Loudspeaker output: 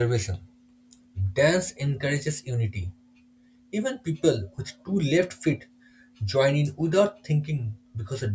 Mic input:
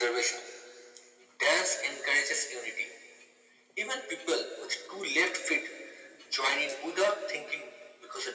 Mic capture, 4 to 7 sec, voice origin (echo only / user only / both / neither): echo only